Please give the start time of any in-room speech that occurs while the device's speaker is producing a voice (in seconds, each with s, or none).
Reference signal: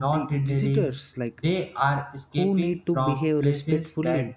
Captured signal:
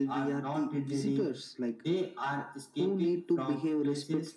none